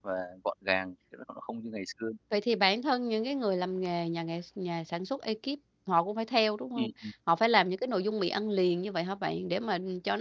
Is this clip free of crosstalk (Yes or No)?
Yes